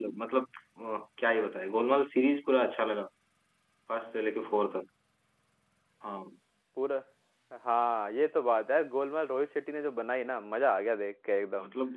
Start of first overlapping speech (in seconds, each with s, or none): none